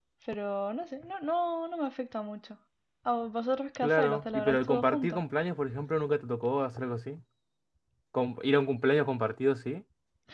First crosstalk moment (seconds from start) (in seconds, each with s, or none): 3.8 s